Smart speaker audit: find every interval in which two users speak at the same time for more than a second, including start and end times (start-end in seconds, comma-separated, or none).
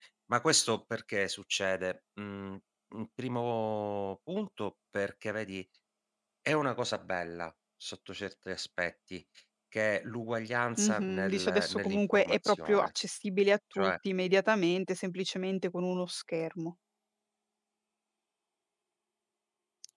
10.8-12.9